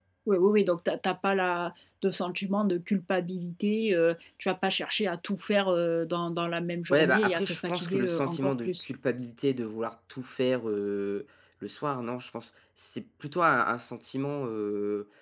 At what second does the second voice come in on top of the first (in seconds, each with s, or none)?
6.9 s